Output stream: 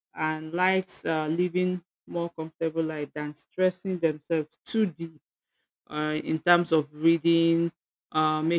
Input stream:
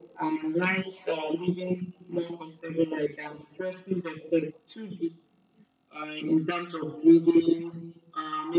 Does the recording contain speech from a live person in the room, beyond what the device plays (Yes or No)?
No